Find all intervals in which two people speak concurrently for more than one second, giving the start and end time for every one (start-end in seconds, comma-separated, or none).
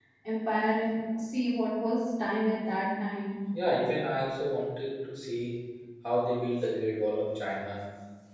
none